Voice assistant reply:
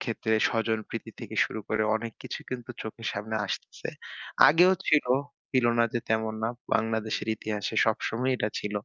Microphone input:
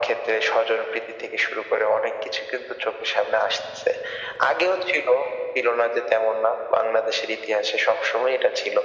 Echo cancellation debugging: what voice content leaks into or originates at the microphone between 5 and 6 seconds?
echo only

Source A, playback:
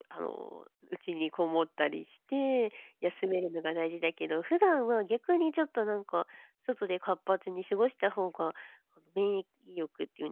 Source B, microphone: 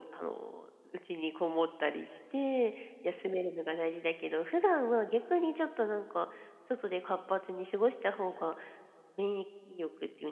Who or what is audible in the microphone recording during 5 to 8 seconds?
echo only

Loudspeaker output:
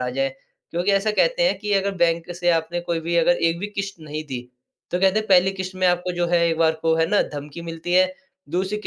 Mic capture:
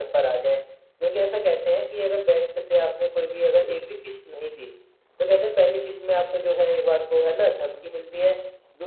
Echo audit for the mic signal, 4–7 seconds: echo only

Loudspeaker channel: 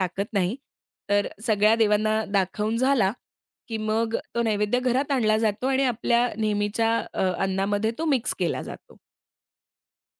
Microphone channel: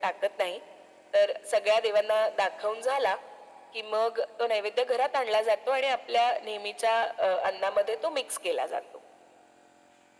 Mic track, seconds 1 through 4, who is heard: echo only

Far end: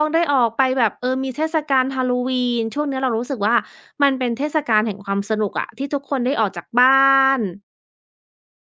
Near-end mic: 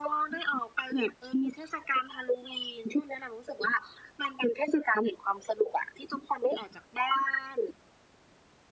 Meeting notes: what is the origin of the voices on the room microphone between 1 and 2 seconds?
echo only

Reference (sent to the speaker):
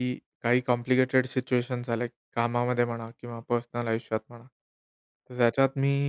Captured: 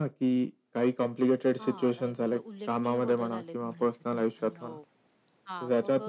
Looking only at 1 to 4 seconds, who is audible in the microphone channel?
both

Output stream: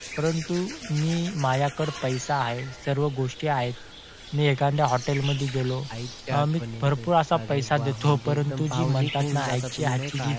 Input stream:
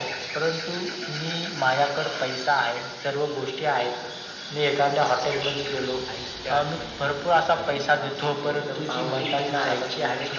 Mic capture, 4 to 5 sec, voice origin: echo only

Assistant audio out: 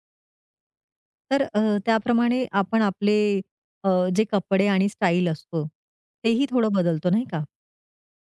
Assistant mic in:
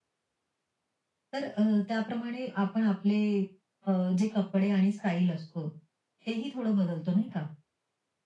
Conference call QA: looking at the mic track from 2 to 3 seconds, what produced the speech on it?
echo only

